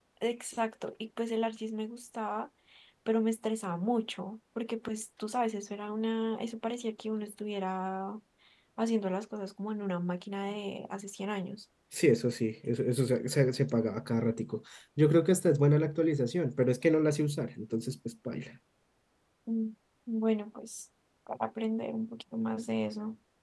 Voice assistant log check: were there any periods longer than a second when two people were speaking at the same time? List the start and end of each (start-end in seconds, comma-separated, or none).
none